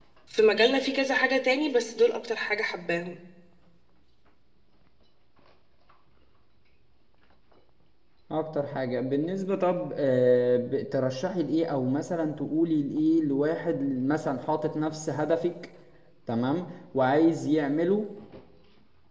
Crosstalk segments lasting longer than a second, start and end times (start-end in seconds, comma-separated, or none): none